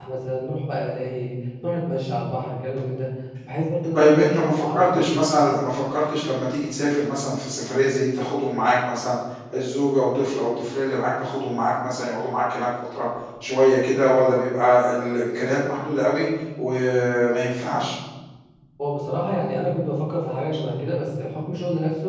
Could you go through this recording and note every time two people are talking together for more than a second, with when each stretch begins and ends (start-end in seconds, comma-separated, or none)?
3.9-5.2